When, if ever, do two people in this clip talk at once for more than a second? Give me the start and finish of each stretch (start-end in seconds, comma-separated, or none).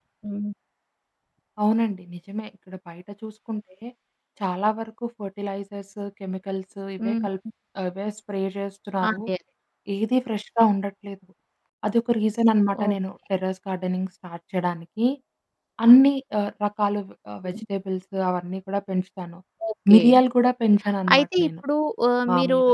none